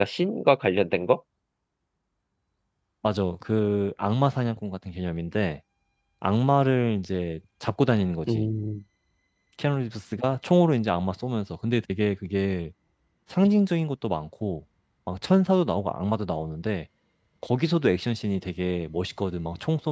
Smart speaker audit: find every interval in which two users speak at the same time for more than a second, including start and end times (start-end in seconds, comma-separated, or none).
none